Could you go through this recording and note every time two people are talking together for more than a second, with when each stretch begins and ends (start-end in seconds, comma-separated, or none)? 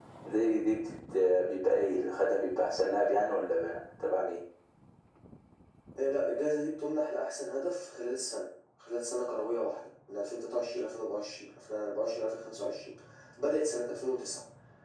none